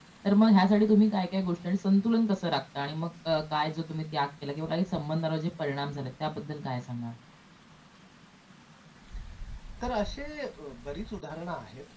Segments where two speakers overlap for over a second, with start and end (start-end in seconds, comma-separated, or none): none